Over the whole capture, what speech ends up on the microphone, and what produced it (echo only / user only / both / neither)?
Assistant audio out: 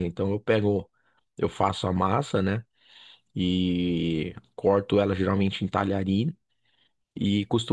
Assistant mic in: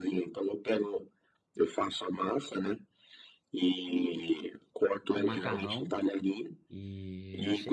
both